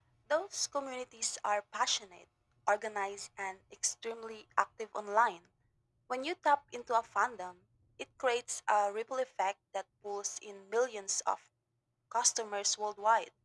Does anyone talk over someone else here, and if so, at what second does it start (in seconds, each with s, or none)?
none